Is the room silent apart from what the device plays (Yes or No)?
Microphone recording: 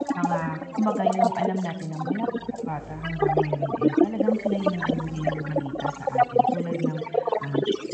No